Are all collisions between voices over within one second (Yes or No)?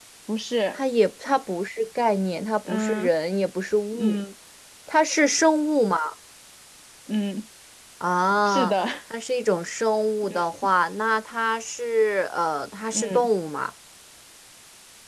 Yes